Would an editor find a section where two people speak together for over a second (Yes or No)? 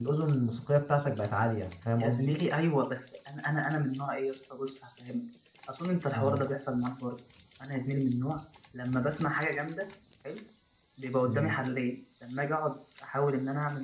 No